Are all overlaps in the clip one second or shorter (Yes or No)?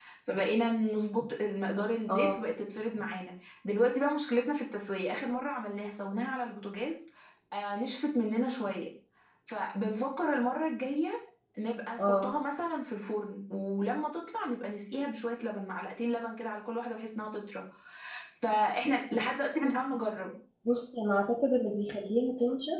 Yes